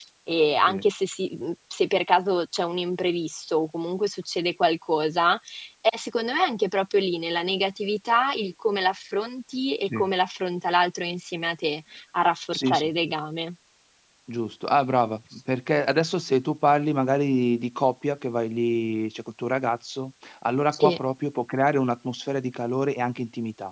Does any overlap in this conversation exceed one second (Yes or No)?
No